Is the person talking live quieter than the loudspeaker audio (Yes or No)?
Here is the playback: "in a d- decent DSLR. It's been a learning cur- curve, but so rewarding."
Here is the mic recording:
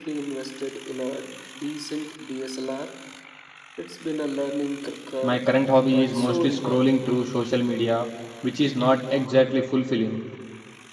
No